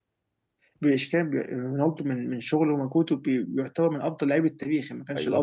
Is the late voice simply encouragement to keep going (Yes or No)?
No